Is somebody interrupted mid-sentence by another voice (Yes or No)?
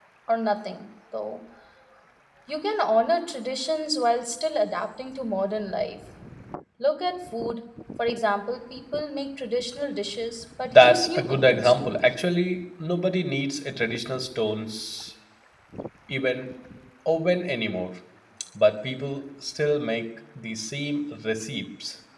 Yes